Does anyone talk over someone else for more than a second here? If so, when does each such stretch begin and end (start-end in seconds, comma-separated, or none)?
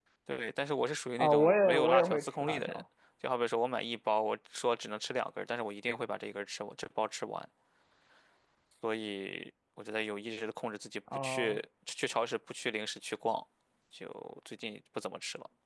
1.2-2.8